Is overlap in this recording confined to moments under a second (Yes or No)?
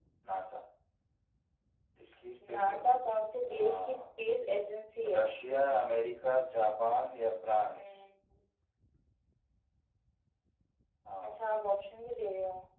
No